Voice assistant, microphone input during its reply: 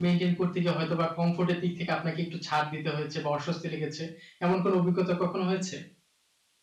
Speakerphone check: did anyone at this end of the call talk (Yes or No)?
Yes